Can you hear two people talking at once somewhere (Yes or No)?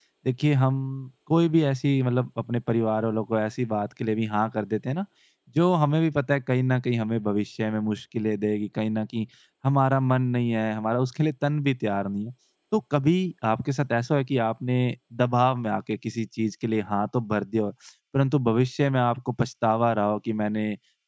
No